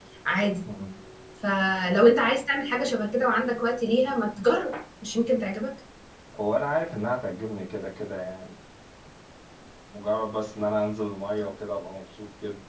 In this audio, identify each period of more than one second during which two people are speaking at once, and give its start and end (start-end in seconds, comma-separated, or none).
none